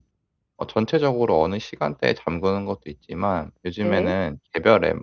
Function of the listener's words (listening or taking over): listening